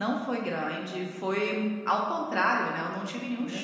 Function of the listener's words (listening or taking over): listening